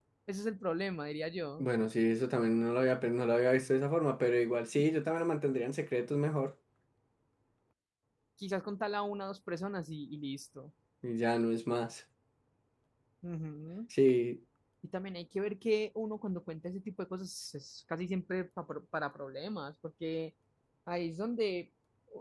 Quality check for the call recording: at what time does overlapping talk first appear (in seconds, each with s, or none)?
none